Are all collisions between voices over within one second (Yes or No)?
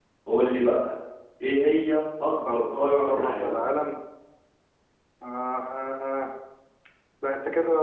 No